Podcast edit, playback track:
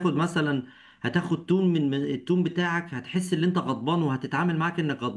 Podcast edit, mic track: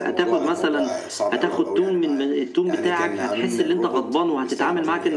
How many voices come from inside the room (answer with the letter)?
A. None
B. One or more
B